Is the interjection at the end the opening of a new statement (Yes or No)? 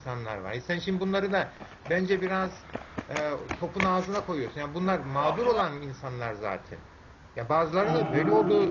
No